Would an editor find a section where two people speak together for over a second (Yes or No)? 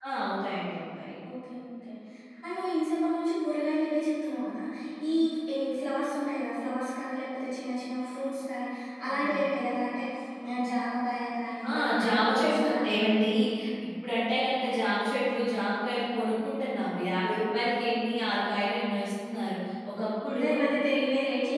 Yes